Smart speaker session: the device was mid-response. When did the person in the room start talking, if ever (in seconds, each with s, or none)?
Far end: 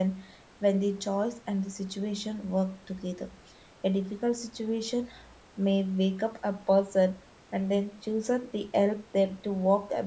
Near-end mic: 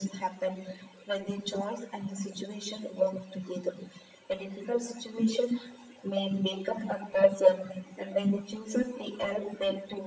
none